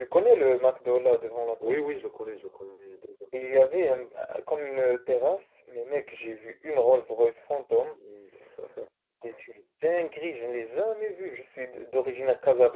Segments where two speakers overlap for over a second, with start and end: none

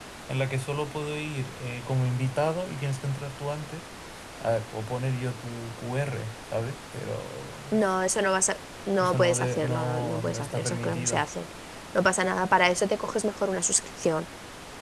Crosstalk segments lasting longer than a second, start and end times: 9.0-11.2

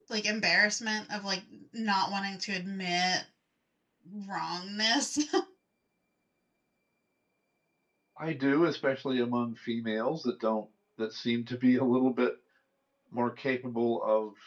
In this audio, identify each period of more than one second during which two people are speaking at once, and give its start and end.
none

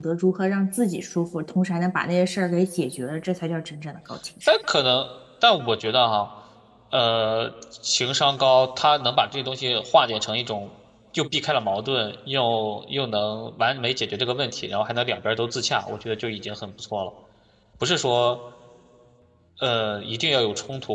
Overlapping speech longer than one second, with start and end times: none

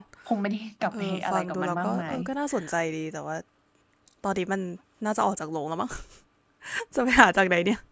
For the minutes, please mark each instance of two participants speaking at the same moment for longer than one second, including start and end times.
0.9-2.2

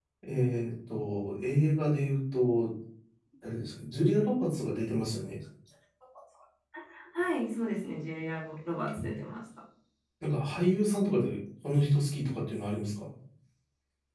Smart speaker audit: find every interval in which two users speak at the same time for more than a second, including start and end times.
none

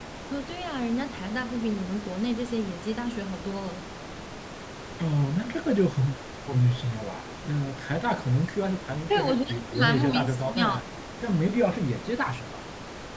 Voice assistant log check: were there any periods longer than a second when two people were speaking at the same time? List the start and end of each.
9.1-10.7

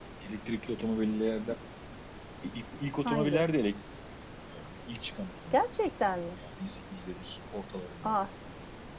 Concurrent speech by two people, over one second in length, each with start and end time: none

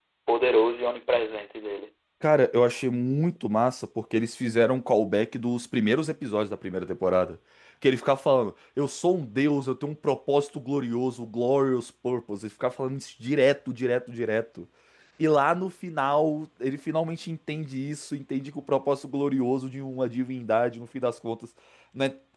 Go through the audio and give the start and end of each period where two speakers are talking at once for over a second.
none

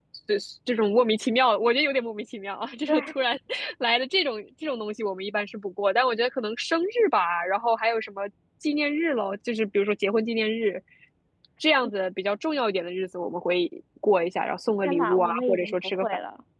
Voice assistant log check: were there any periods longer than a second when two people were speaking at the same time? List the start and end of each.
14.8-16.1

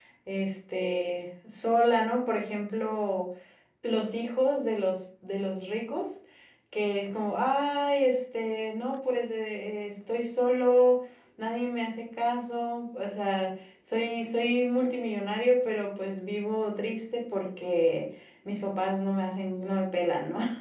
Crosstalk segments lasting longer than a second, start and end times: none

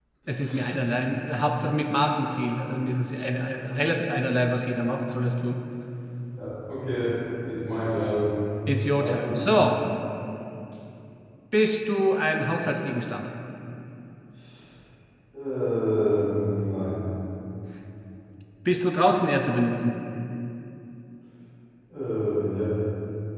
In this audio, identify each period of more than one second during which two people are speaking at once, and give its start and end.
none

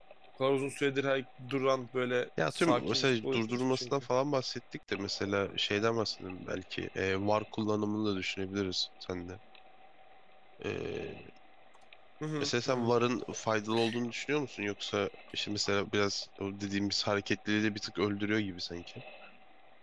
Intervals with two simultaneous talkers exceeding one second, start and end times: 2.5-3.9

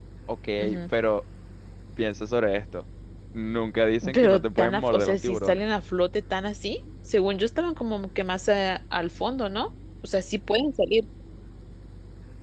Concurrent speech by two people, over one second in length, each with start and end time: 4.1-5.6

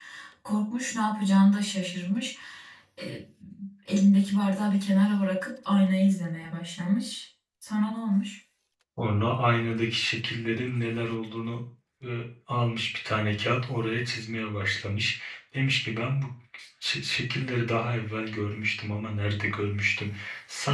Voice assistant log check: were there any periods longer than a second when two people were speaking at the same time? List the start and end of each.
none

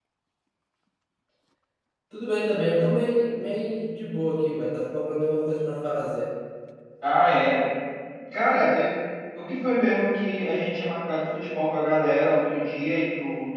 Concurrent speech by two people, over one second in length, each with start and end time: none

